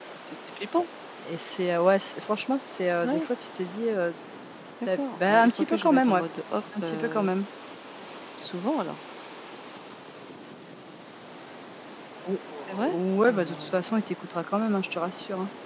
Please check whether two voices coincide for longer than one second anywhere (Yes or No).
Yes